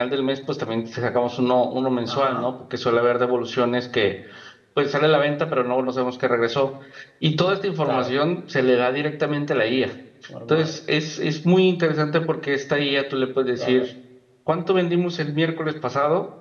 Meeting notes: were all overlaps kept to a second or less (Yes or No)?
Yes